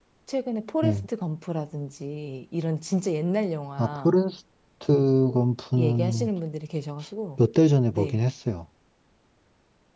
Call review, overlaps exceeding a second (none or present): none